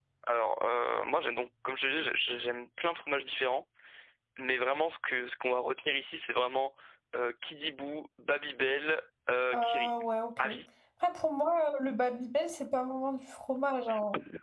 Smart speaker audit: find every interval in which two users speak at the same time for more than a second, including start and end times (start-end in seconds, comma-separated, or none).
none